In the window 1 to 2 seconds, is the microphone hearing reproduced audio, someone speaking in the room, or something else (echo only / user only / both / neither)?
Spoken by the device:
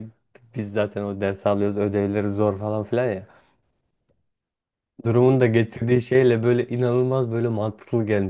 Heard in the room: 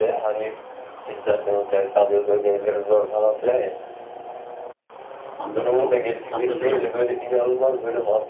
echo only